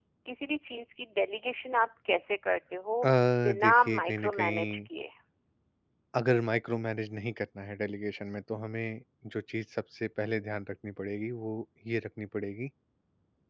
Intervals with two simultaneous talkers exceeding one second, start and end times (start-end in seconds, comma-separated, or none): 3.6-4.8